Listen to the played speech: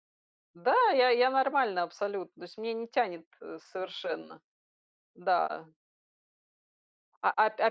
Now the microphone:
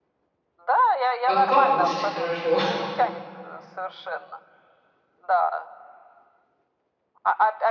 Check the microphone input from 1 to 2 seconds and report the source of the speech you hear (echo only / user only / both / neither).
both